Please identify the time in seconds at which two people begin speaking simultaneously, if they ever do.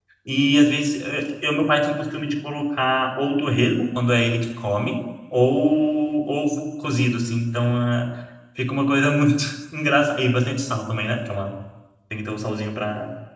none

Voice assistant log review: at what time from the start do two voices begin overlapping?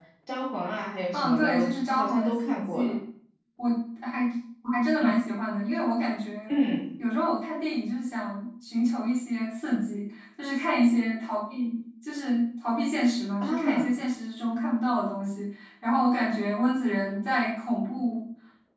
1.1 s

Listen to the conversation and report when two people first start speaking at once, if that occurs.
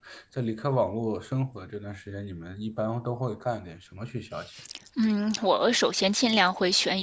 none

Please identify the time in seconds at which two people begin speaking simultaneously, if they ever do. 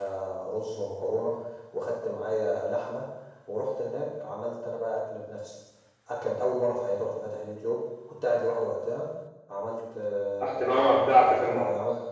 10.4 s

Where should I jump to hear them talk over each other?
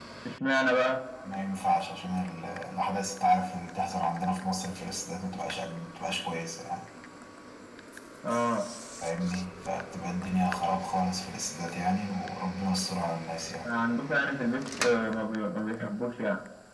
none

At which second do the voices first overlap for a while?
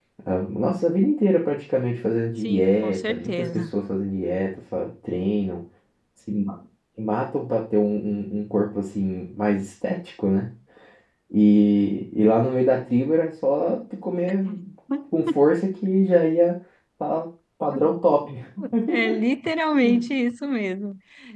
2.4 s

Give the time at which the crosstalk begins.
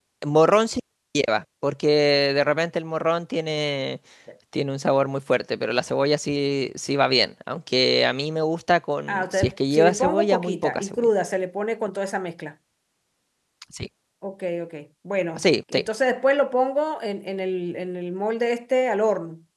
9.1 s

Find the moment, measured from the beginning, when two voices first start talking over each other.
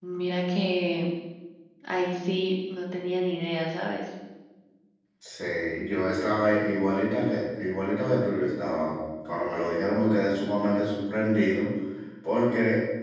none

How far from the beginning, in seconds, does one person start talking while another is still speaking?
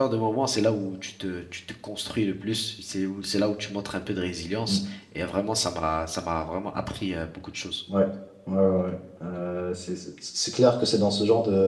none

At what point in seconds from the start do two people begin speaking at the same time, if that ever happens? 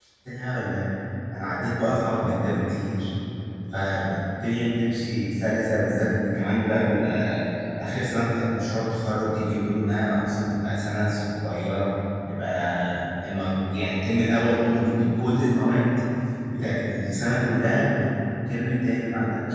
none

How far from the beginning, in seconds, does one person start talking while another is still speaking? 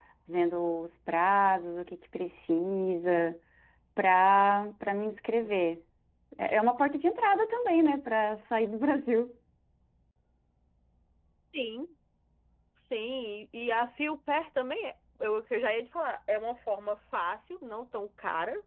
none

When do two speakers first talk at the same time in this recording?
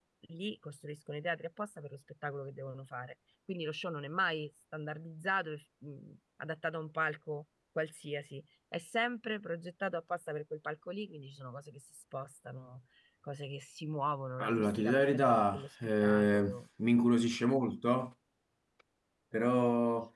14.4 s

